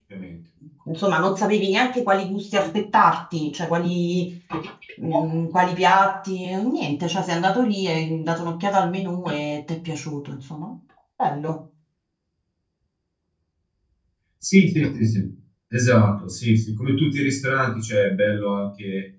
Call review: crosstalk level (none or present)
none